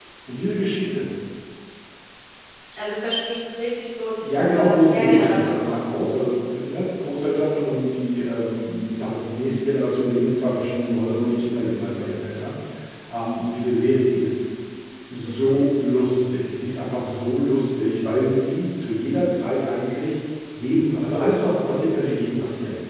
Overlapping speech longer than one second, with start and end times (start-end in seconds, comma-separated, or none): 4.2-5.9